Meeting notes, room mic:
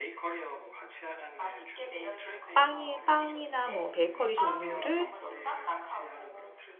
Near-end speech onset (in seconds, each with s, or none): 2.5 s